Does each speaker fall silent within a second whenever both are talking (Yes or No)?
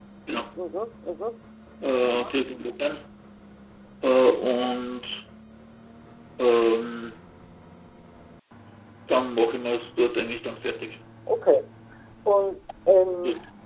Yes